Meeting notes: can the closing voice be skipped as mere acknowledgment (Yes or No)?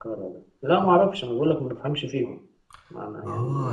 No